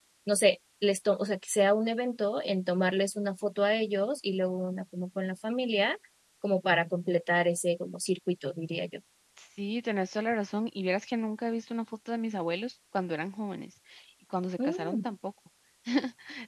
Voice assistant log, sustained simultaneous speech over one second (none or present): none